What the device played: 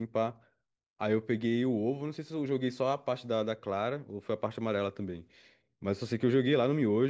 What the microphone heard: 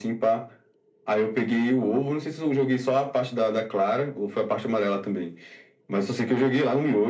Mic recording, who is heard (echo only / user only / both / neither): echo only